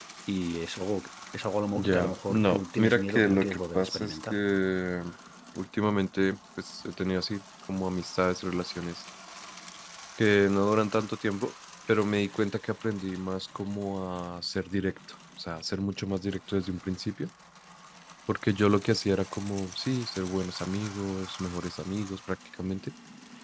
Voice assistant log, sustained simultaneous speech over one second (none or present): present